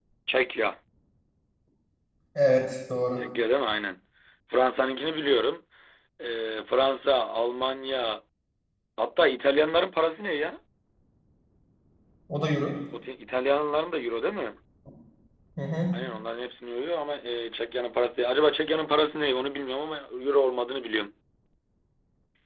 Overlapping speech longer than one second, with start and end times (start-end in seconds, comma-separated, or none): none